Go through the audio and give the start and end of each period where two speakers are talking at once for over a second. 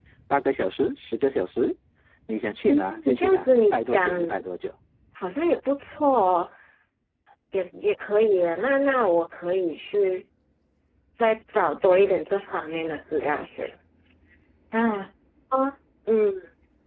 2.7-4.1

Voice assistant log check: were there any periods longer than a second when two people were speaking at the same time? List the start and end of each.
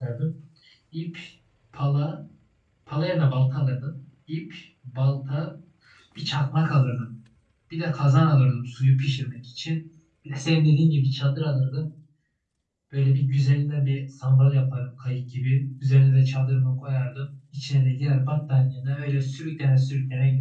none

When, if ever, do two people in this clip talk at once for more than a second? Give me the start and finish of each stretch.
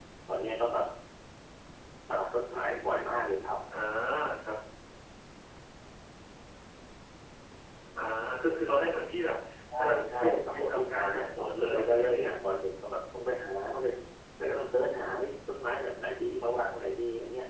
9.8-12.2

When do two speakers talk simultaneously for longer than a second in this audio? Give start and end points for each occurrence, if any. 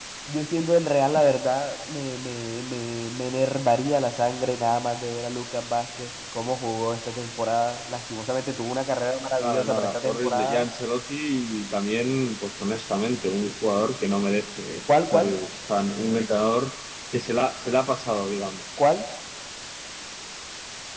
9.4-10.7

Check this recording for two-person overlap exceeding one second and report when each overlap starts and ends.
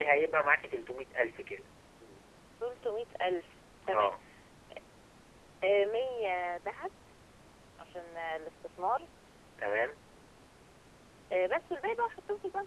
none

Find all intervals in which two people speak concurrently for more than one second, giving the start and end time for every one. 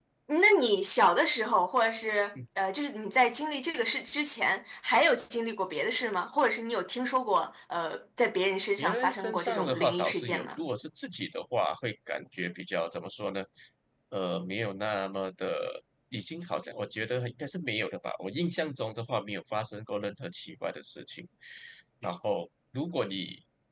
8.8-10.5

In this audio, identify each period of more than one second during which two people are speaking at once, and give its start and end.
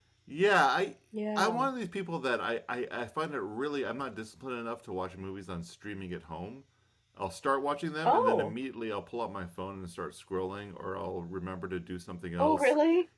none

